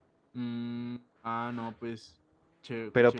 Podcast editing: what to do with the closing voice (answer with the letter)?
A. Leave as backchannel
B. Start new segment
B